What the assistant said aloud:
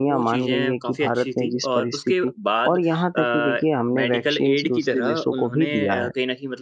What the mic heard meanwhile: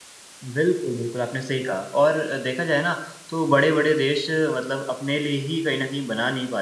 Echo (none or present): none